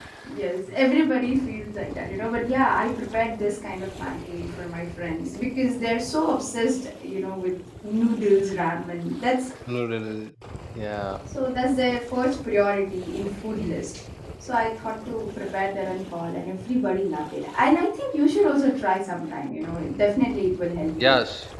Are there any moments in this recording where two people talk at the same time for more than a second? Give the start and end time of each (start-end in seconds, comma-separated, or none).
none